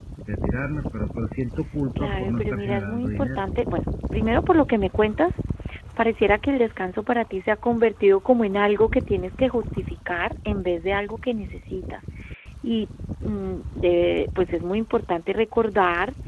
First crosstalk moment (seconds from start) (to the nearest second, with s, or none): 2 s